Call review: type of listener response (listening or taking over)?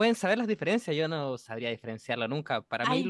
listening